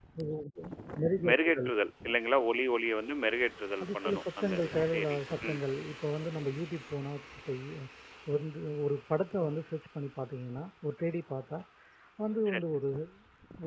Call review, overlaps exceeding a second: present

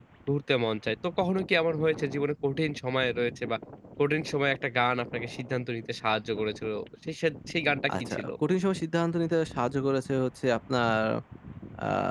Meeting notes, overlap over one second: none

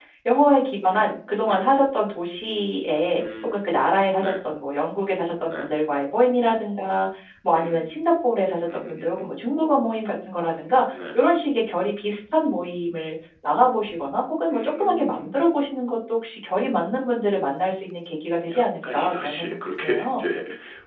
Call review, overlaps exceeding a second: present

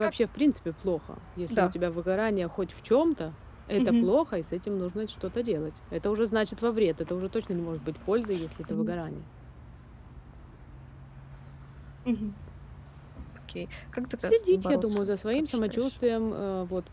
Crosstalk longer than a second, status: present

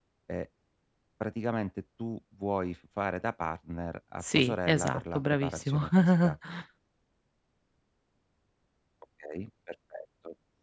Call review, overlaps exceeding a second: present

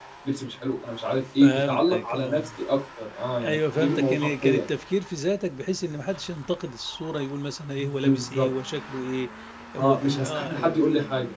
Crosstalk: present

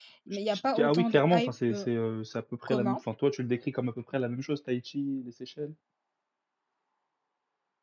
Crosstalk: present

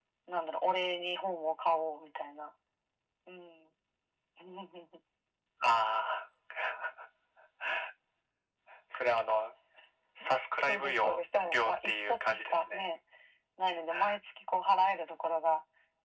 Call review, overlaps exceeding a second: present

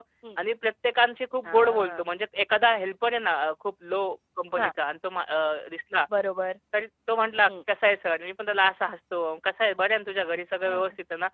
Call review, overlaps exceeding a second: none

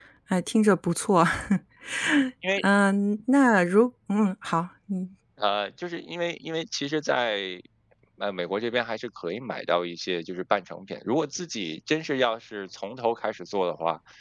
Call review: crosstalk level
none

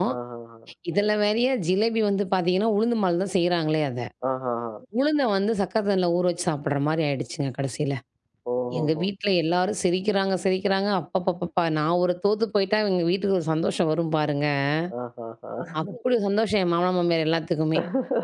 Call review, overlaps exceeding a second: none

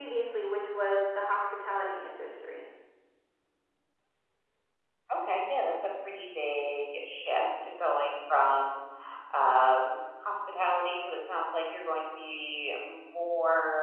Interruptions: none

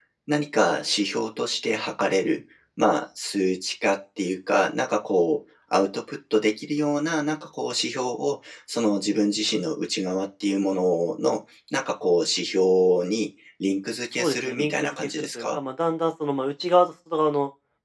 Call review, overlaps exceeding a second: present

